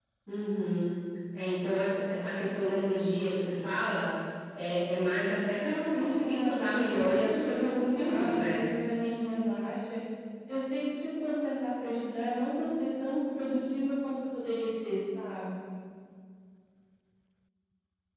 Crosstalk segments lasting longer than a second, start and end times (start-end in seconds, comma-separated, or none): 5.9-8.6